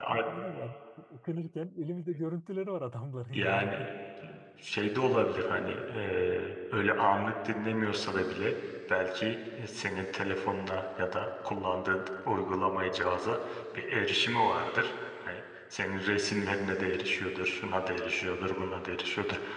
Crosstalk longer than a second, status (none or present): none